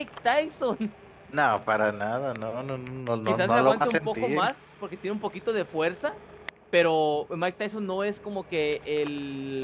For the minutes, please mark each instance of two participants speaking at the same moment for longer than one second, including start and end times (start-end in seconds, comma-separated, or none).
3.3-4.5